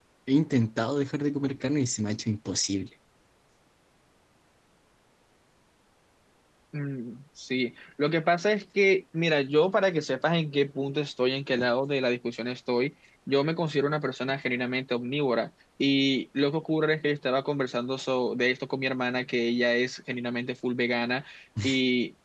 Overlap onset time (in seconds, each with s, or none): none